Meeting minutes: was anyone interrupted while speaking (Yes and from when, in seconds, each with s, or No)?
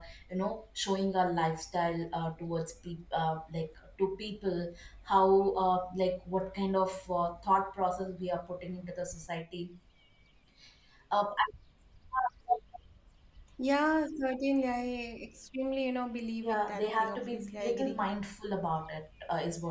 Yes, from 16.4 s